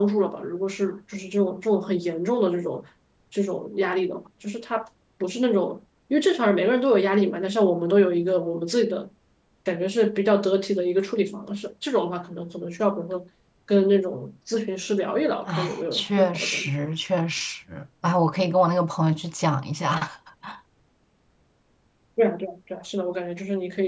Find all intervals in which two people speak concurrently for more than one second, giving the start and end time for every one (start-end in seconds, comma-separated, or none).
15.5-16.7